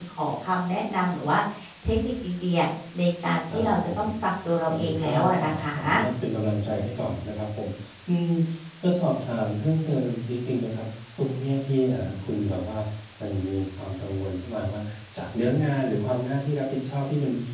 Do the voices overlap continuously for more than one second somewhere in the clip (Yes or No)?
Yes